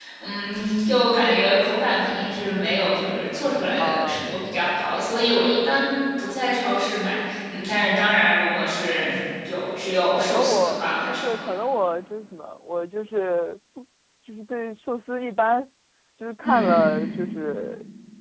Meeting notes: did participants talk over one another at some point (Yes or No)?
Yes